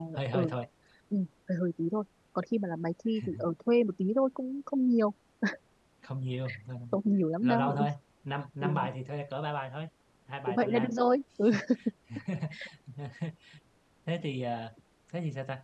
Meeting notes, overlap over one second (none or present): none